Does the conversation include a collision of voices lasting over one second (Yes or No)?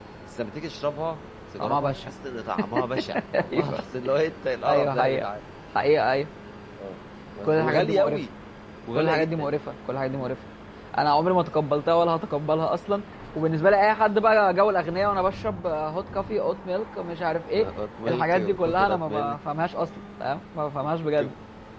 Yes